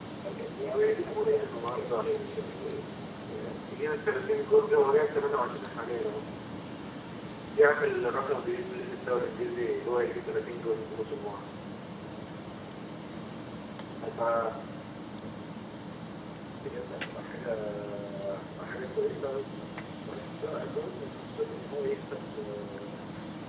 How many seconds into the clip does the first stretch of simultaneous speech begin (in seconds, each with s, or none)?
0.6 s